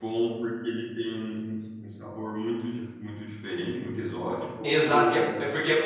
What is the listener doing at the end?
taking over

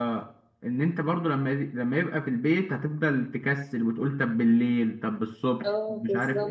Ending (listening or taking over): taking over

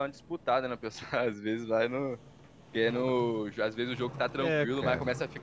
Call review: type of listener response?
listening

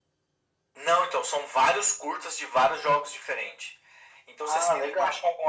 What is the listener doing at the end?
listening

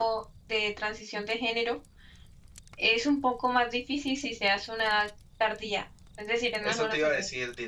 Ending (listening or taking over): taking over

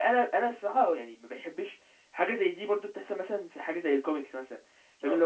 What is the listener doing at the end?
listening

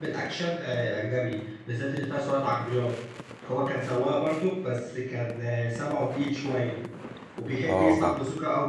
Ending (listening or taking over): listening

